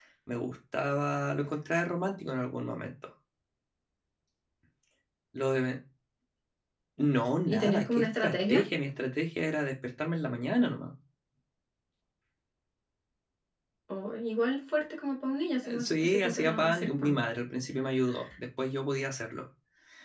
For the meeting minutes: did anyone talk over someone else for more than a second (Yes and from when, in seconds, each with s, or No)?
Yes, from 7.4 s